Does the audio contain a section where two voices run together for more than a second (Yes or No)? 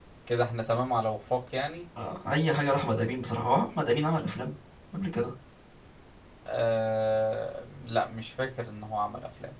No